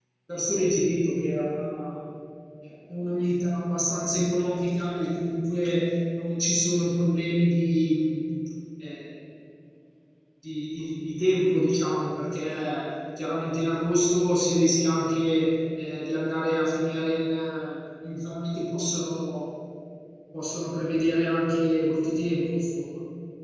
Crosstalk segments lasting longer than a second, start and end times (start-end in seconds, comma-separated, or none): none